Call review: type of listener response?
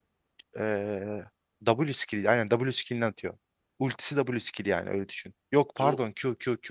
listening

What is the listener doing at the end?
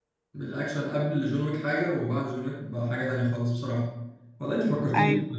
listening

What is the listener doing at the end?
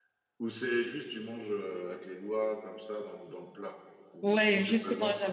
taking over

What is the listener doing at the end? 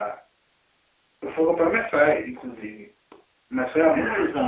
listening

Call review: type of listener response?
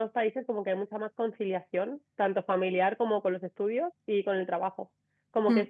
listening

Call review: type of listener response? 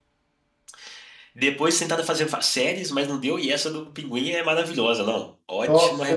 taking over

